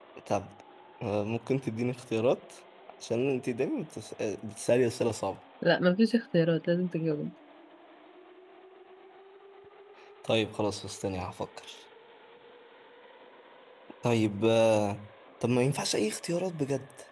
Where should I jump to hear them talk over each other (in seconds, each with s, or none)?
none